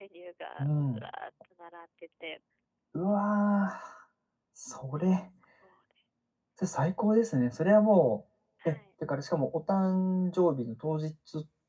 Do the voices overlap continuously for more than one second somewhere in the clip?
No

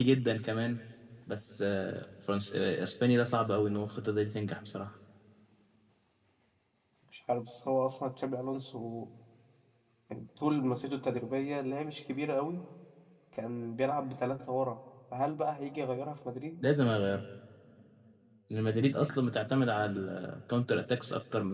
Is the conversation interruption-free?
Yes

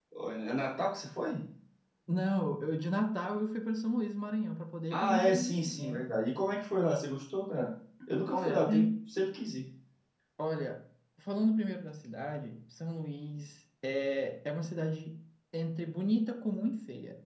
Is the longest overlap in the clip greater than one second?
Yes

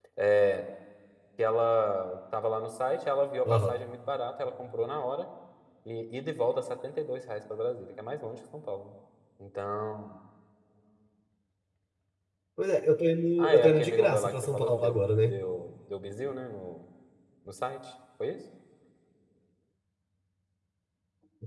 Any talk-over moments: Yes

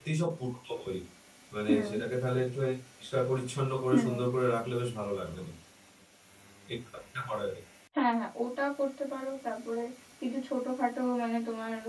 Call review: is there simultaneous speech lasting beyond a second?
No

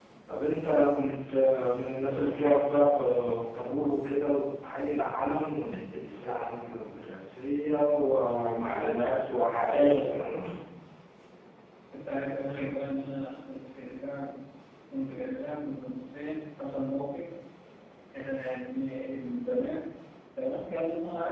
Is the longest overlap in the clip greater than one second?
No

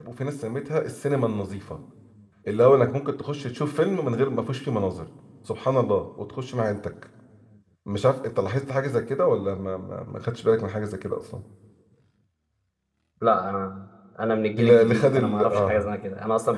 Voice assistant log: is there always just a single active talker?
No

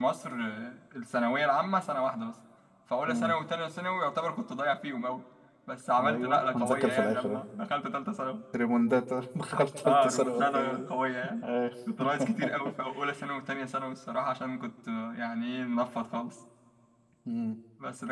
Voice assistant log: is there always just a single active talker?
No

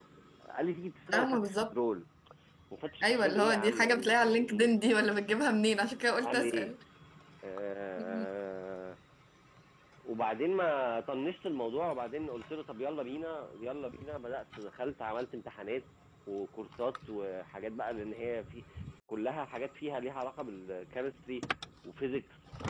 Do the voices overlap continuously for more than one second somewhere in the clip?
Yes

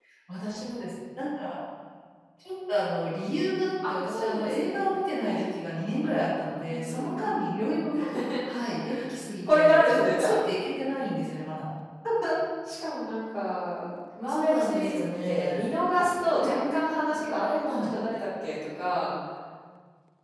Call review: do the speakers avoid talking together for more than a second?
No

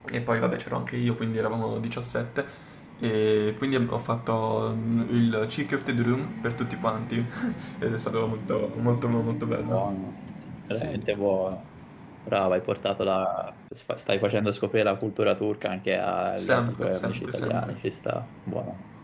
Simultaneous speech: Yes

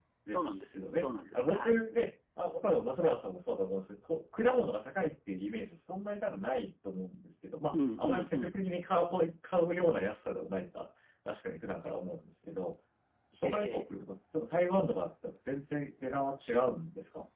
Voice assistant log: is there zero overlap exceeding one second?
No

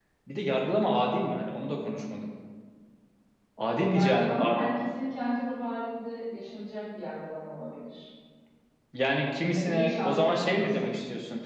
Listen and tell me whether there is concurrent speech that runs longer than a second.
Yes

